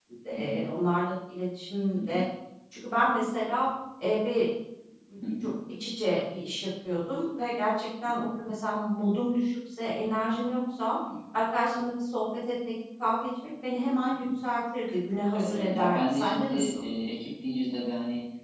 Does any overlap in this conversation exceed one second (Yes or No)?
Yes